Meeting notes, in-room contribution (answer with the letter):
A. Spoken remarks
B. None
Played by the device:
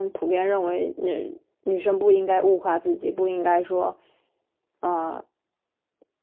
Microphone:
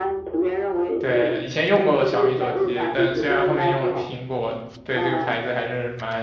A